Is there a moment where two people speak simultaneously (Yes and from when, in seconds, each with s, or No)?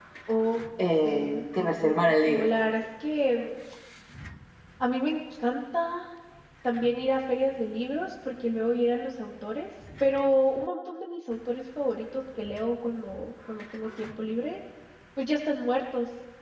Yes, from 1.0 s